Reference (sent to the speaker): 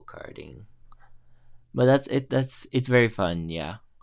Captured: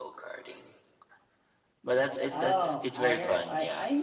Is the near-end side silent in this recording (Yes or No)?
No